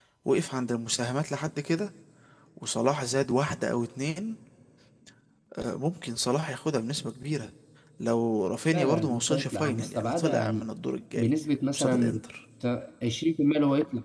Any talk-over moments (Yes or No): Yes